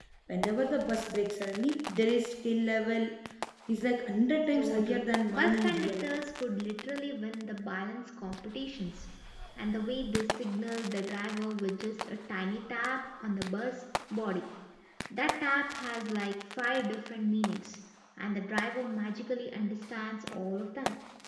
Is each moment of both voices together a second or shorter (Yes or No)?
No